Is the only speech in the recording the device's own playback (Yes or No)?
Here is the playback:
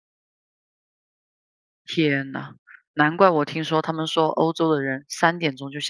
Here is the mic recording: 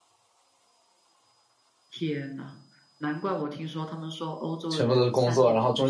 No